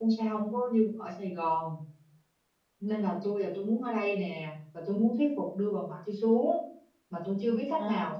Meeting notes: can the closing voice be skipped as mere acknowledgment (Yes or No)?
Yes